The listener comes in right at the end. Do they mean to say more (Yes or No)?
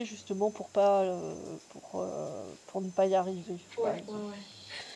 Yes